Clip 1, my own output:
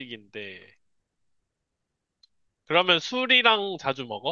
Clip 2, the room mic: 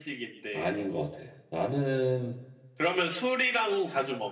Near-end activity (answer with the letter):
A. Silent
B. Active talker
B